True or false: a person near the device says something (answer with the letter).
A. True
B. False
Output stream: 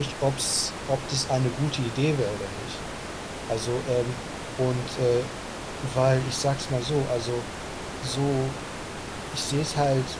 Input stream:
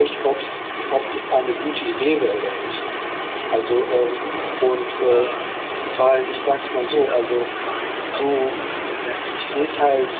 A